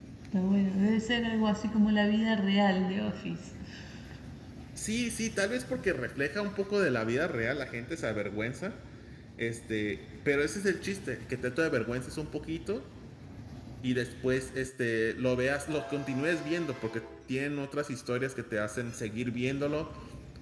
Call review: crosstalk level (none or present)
none